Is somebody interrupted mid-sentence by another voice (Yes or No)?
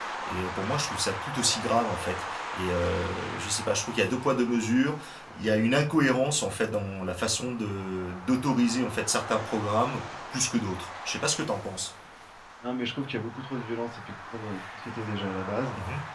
No